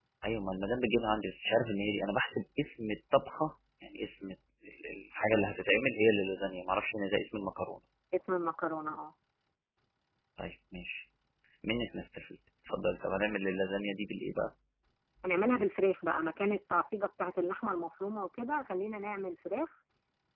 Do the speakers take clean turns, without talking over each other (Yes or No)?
Yes